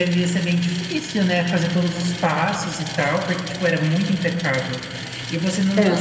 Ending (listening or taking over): listening